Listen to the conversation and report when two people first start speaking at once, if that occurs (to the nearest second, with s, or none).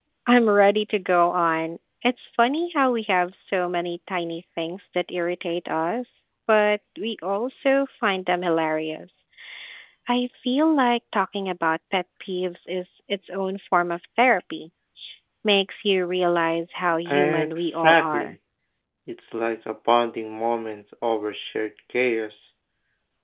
17 s